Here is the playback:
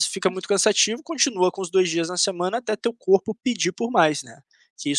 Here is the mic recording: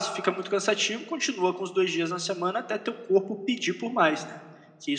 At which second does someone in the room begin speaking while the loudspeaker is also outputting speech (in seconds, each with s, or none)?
none